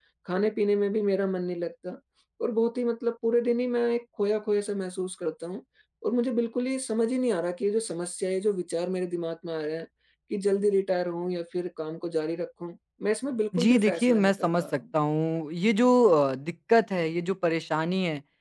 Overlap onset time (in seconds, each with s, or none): 13.5 s